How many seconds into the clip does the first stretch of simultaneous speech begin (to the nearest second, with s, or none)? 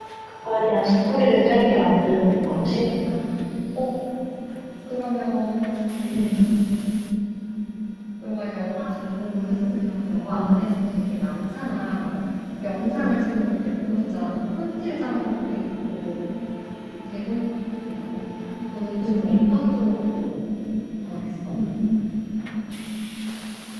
2 s